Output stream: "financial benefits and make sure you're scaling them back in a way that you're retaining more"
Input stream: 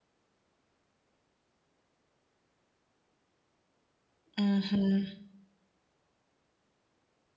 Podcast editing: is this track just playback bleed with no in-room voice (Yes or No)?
No